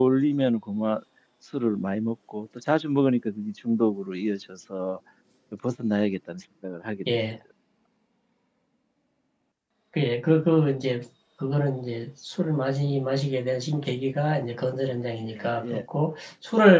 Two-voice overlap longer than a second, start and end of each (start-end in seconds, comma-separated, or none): none